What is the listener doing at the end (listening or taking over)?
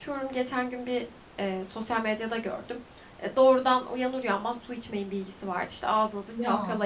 listening